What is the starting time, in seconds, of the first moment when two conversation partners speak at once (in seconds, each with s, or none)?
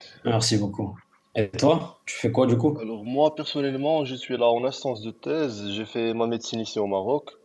none